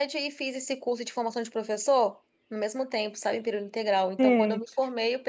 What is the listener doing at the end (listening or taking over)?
listening